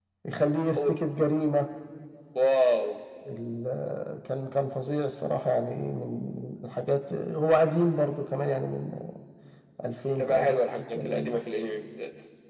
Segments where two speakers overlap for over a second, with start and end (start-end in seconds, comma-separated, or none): 10.2-11.4